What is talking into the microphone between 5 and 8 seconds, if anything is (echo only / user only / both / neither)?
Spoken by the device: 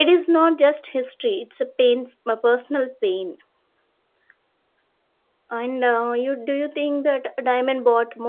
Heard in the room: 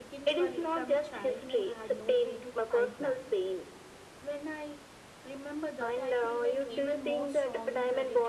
both